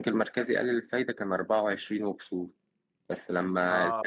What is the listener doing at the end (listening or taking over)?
listening